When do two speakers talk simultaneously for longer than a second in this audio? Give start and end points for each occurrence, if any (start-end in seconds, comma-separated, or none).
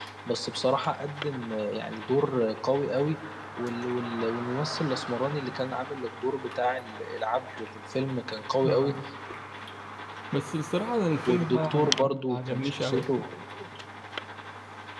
11.3-13.0